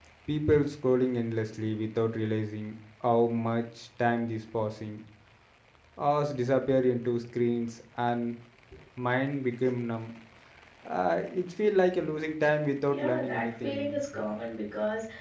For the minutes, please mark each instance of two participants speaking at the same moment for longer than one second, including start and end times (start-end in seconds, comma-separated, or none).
12.9-14.2